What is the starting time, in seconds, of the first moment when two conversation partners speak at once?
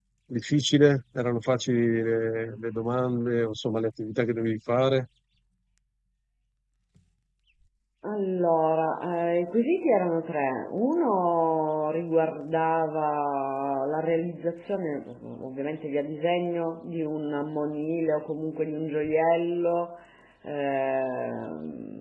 none

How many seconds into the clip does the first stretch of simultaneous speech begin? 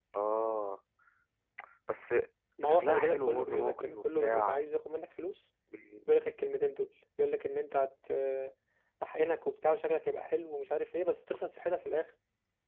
2.6 s

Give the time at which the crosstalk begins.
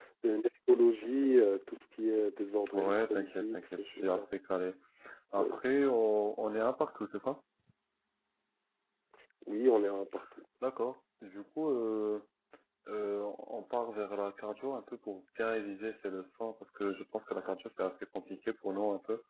2.7 s

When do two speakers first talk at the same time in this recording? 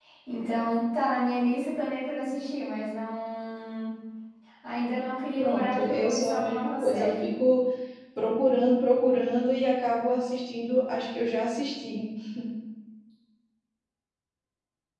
5.4 s

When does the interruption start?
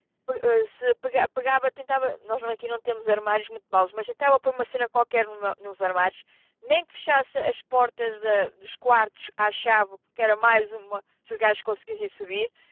none

